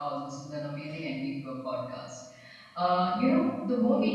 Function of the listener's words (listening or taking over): listening